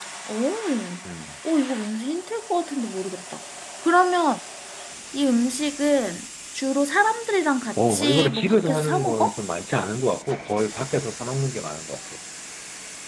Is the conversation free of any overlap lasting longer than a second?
No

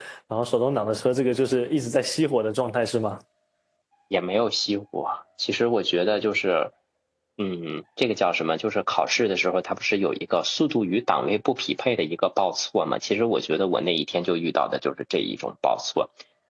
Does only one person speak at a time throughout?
Yes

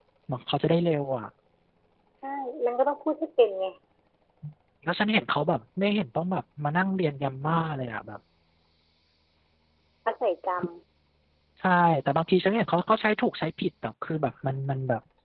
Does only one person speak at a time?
Yes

